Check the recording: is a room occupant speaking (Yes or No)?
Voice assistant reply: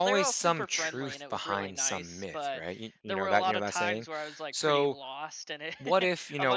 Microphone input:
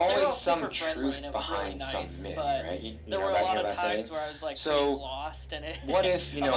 No